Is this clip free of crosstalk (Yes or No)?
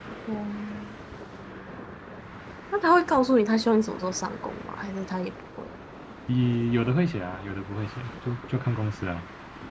Yes